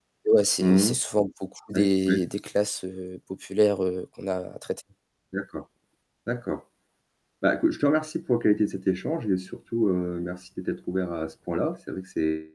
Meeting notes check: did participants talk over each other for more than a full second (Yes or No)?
No